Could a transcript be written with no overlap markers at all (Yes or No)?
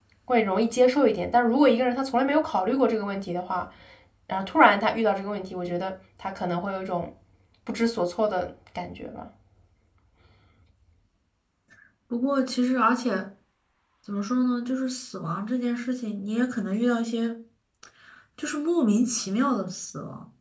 Yes